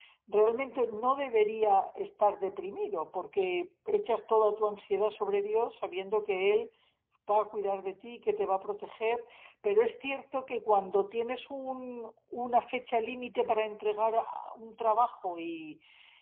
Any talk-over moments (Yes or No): No